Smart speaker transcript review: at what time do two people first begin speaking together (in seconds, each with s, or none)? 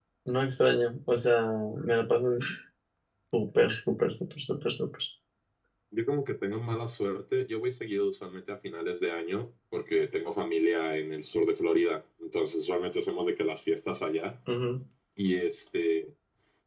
none